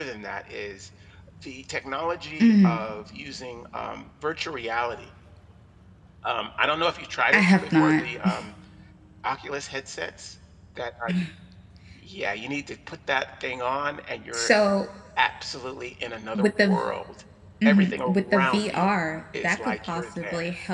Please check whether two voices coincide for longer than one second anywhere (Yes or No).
Yes